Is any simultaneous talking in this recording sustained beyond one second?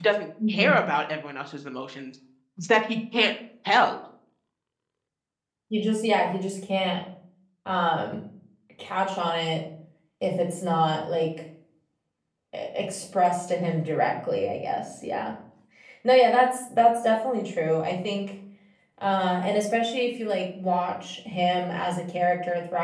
No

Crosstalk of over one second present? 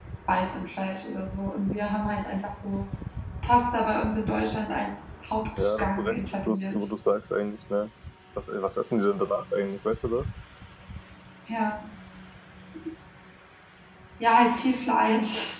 Yes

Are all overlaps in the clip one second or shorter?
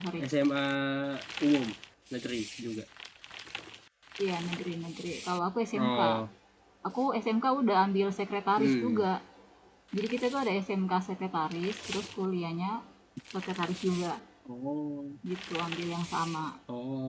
Yes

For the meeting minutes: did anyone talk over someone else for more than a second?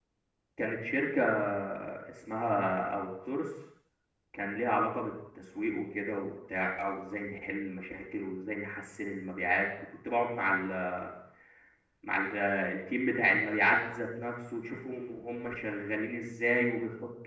No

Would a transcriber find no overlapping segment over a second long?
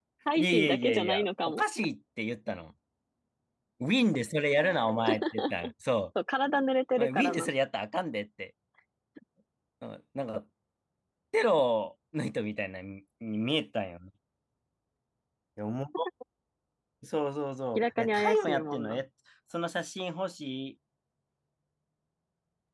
No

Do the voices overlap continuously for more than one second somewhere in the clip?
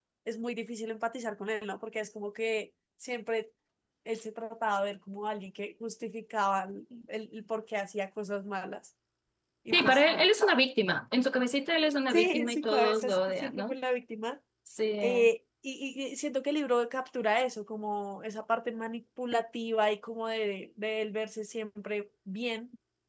Yes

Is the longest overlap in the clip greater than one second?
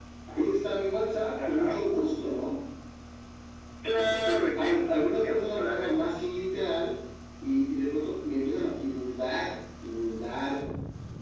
Yes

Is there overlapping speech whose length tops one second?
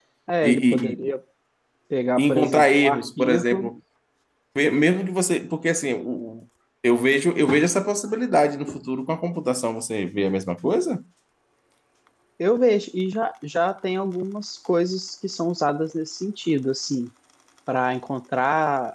Yes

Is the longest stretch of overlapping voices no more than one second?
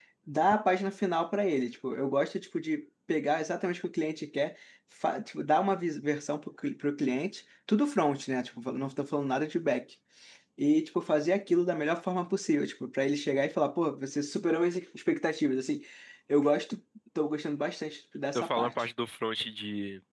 Yes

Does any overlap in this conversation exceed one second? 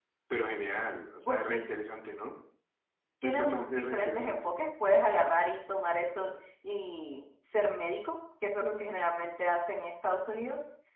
Yes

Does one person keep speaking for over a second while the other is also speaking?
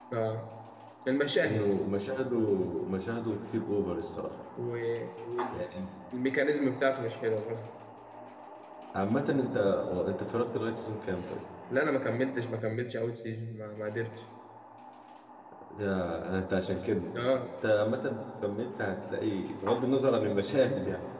No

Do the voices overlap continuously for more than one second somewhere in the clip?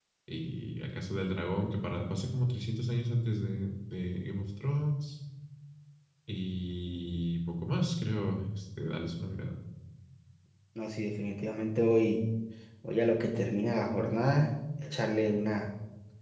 No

